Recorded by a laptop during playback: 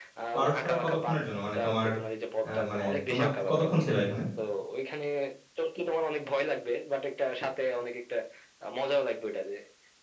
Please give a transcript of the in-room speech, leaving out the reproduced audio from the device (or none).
বারোশো টাকা কতক্ষণের জন্য মানে তোমার আহ, মানে তোমরা কতক্ষণ ছিল এখানে